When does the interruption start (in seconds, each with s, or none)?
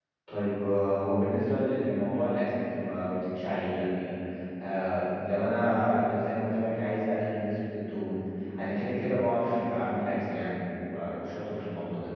none